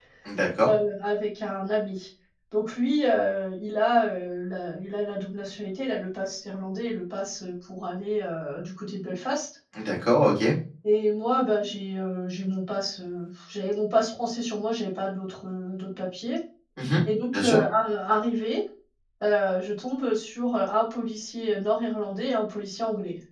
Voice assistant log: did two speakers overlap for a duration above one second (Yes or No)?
No